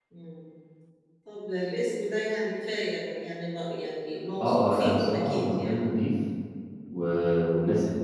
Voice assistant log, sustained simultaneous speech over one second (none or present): present